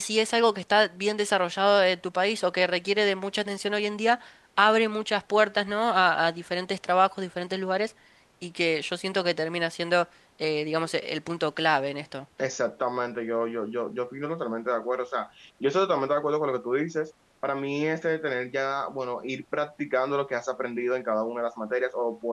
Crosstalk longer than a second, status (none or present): none